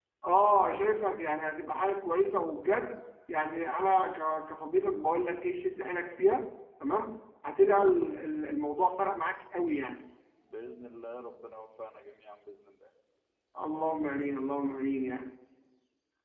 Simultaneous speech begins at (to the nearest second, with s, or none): none